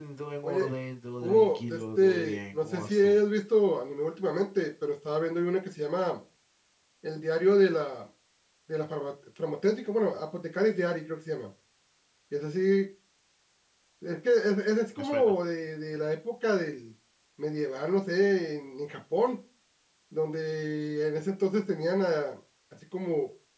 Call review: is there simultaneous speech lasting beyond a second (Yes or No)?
Yes